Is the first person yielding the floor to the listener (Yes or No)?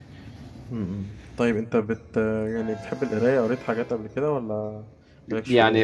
Yes